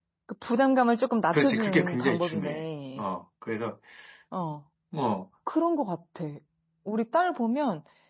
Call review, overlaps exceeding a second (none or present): present